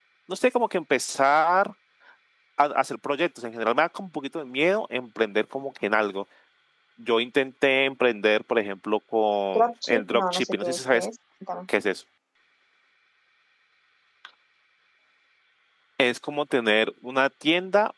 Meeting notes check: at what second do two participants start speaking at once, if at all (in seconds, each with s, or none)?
9.6 s